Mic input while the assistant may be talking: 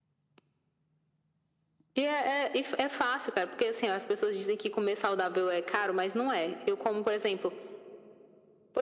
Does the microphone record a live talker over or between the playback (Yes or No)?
No